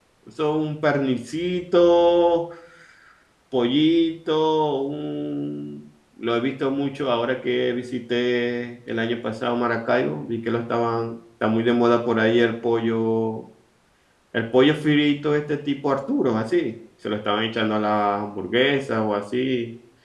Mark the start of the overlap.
none

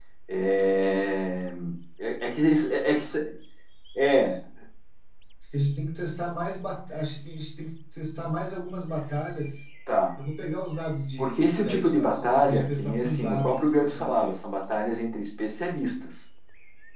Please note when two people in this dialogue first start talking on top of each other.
11.2 s

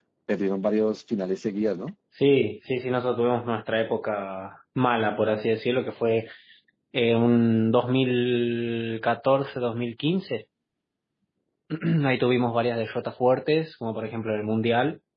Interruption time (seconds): none

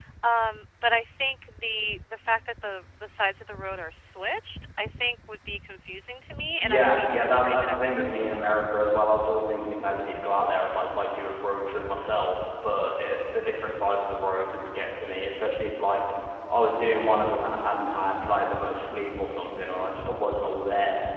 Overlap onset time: 6.6 s

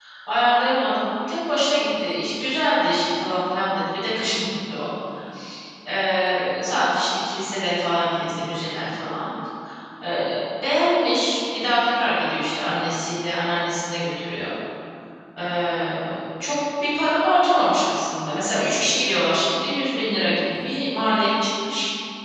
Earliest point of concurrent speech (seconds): none

